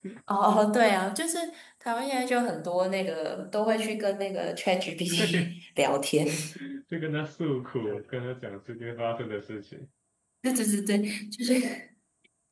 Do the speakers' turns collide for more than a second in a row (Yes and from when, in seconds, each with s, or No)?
No